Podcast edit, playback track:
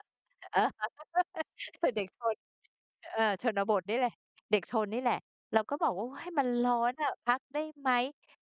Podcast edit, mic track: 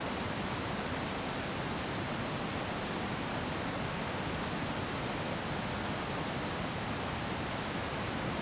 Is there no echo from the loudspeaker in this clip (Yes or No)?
Yes